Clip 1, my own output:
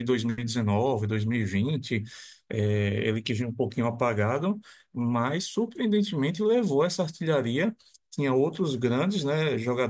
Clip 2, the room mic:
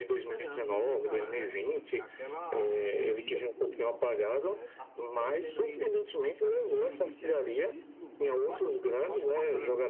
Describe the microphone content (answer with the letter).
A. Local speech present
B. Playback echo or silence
A